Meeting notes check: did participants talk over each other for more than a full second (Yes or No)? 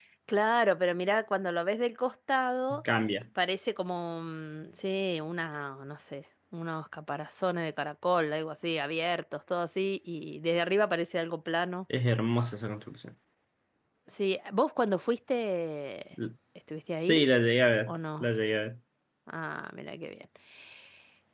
No